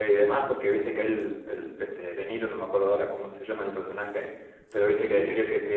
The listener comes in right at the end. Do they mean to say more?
No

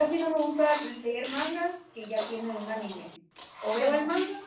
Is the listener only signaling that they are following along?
Yes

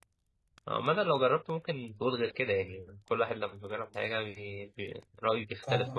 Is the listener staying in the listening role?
No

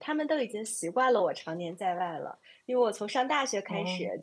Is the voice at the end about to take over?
No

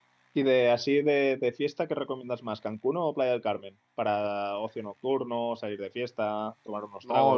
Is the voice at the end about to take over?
Yes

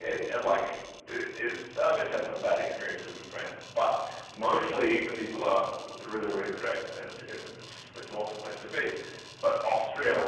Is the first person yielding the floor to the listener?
No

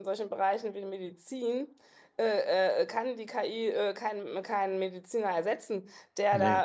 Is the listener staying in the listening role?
Yes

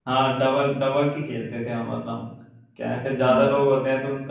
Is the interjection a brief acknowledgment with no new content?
Yes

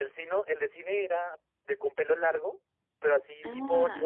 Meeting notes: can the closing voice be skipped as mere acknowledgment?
Yes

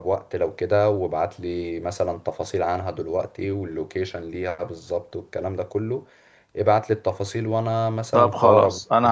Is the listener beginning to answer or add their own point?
Yes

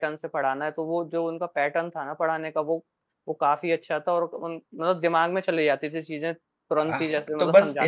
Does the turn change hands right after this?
Yes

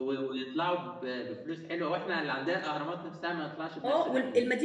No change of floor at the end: No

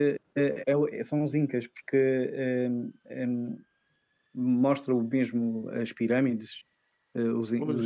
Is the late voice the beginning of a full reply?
No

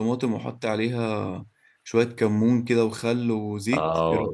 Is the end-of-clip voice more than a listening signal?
Yes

